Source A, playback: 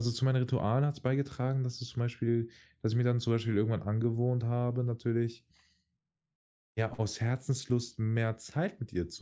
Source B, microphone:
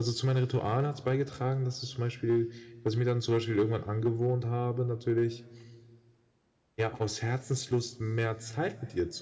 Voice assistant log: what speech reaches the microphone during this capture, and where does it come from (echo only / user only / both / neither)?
echo only